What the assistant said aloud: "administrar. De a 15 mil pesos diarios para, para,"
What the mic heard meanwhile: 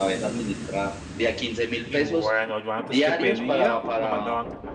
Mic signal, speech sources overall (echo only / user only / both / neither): both